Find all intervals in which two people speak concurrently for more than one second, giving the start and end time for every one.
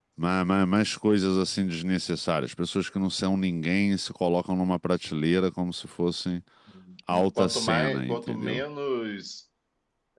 7.4-8.6

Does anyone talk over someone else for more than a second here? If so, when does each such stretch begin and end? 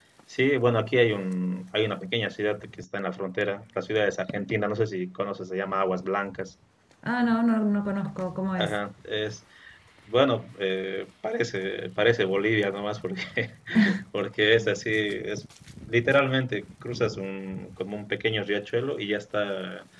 none

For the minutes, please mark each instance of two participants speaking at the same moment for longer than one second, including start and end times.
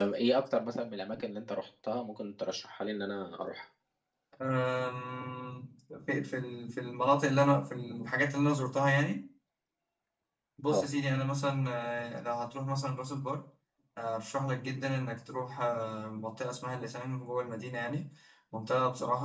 none

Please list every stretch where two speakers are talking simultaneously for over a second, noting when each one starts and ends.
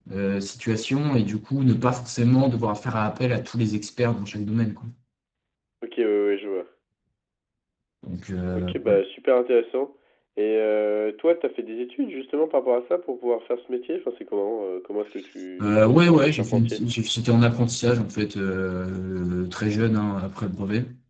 15.6-16.8

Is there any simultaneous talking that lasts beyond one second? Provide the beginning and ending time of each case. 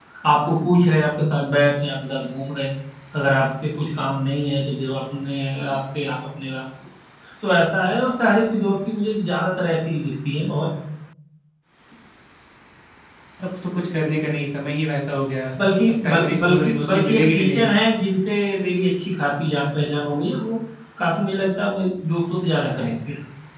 16.0-17.7

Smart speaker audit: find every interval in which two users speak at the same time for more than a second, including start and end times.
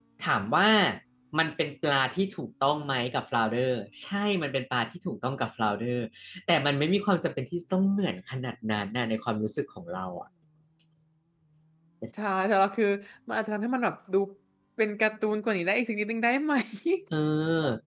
none

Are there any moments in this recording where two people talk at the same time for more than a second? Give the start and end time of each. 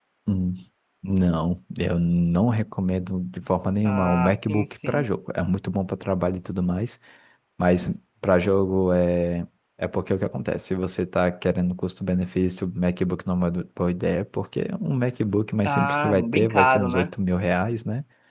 3.8-5.1, 15.7-17.1

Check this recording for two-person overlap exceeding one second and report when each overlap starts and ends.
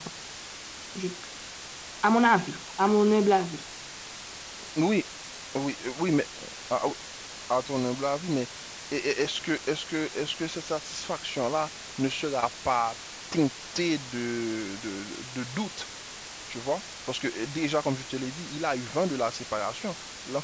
none

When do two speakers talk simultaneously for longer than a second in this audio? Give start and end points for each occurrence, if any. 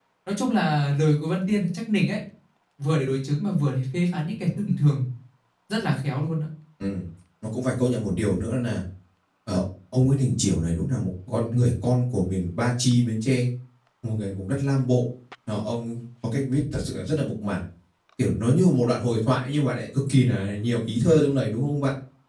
none

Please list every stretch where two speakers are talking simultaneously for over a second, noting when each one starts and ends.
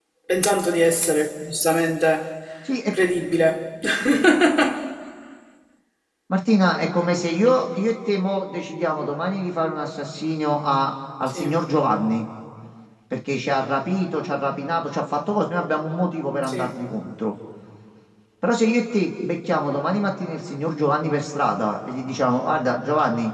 none

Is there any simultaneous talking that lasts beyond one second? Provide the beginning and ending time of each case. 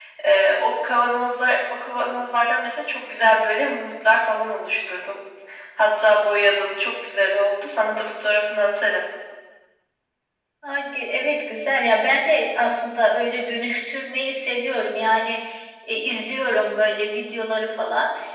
none

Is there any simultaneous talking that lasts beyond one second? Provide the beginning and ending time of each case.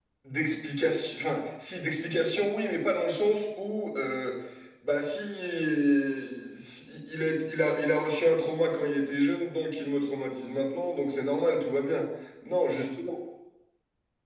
none

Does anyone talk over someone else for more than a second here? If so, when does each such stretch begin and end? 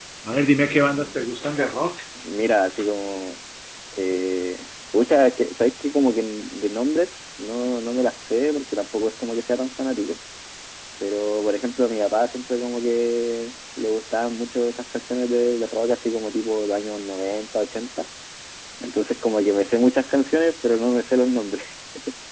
none

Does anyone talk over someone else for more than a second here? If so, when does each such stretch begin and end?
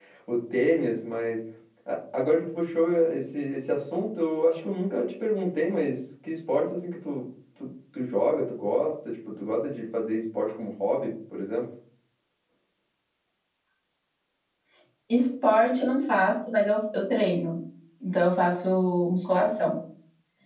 none

